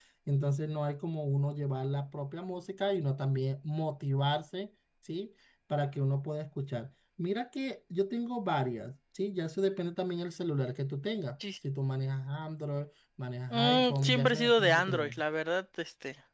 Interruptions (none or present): present